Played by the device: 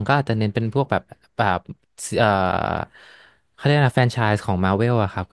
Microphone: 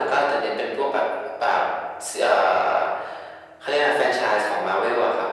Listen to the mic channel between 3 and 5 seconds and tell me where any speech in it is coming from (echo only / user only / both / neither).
echo only